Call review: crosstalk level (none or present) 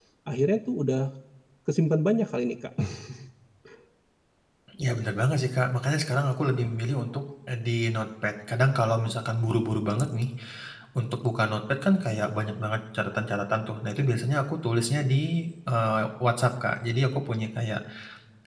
none